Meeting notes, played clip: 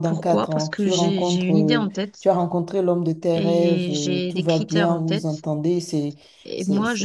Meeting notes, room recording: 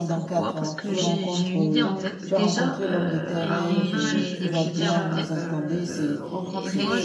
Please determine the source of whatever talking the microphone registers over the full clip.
both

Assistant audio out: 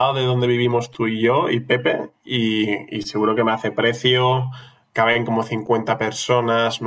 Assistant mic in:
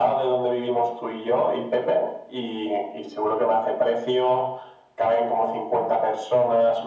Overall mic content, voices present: echo only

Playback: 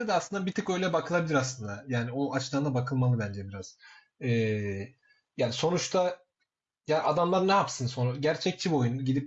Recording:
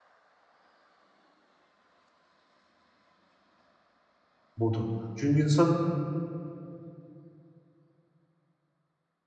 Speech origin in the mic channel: user only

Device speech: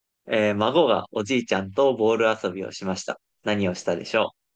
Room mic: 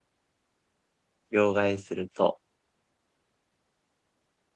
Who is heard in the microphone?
user only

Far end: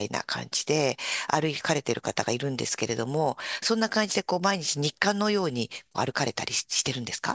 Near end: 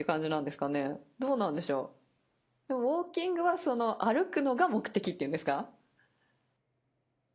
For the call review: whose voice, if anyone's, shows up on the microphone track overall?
user only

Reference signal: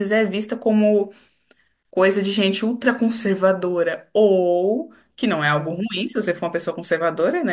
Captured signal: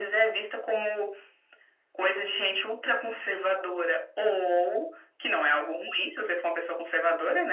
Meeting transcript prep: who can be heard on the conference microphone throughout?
echo only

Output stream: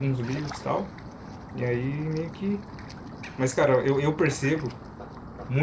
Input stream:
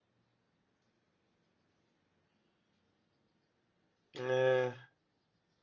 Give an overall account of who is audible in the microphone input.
user only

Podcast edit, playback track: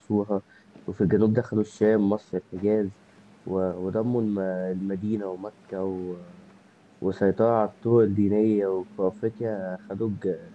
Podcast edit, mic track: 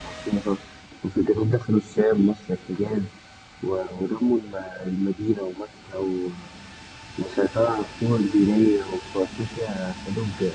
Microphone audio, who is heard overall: echo only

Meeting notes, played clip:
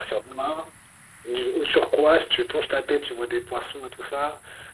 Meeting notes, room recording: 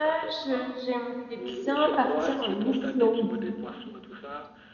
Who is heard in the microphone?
both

